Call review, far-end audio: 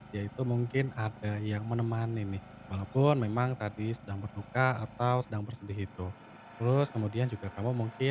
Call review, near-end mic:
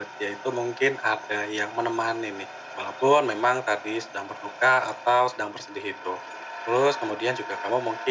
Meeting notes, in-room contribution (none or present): none